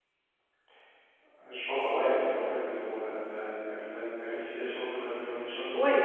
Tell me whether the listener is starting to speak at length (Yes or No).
Yes